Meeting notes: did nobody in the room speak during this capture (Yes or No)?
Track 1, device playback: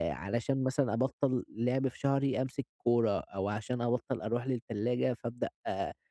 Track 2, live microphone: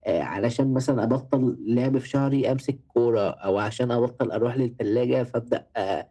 Yes